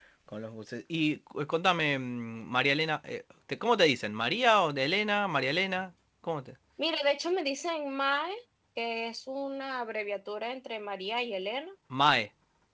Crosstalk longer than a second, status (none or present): none